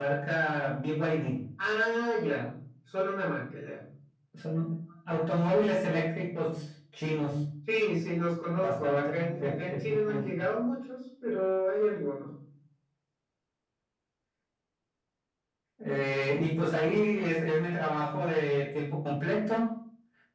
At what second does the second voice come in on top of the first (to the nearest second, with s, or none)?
9 s